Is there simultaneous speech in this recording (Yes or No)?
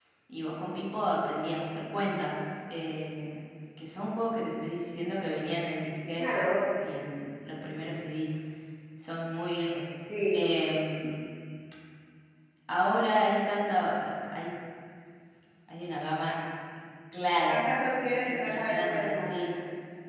Yes